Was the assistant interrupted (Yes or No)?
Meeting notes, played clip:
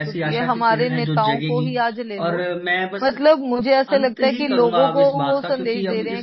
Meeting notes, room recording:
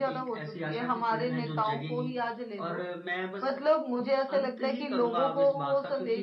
No